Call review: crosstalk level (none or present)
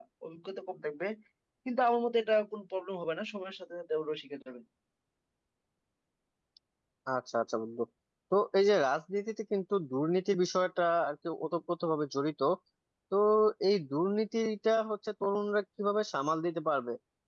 none